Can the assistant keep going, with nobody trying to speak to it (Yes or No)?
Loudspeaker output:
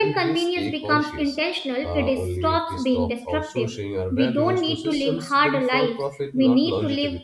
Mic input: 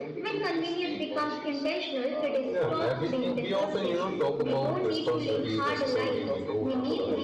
No